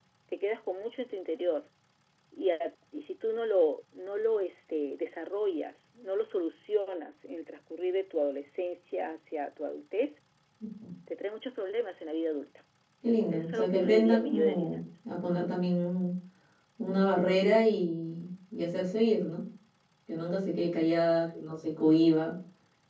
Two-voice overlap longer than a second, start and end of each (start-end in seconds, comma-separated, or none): 13.3-14.8